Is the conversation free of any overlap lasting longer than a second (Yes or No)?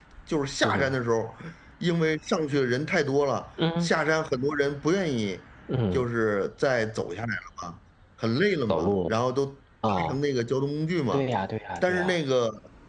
Yes